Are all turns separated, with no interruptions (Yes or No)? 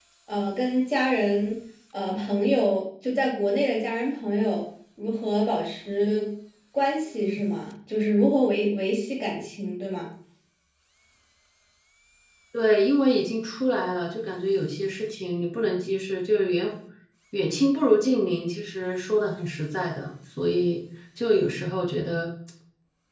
Yes